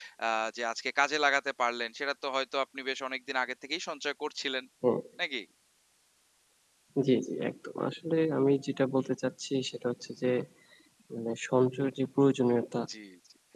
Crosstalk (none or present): none